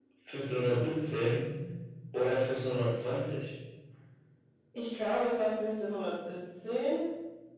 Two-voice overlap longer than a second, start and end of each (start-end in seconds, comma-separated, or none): none